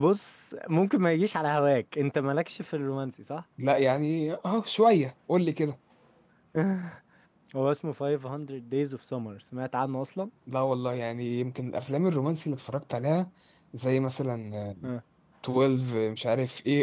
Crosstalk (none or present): none